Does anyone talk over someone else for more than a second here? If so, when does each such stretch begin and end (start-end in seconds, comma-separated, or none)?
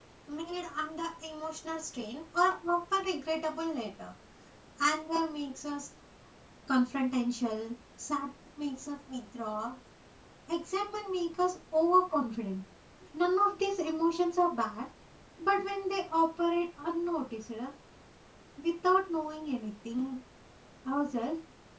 none